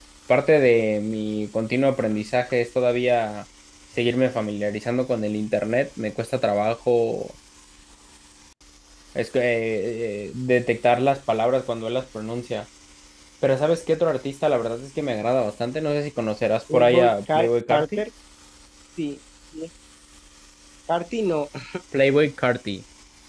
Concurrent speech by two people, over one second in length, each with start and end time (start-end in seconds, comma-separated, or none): 16.7-18.0